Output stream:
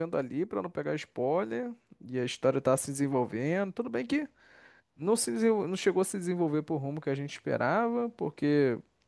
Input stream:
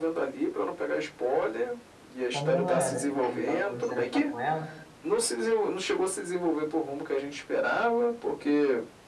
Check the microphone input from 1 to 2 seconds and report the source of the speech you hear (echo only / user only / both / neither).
echo only